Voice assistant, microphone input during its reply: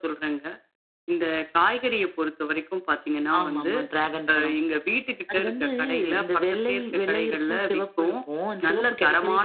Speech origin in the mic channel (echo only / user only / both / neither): echo only